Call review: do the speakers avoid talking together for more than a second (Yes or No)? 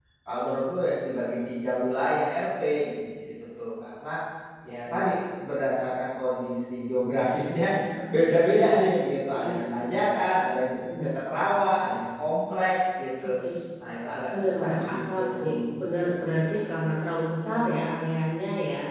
No